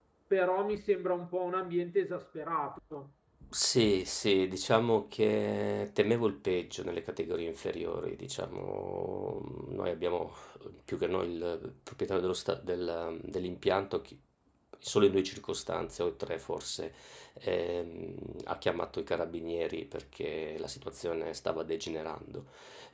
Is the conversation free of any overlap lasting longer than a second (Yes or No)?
Yes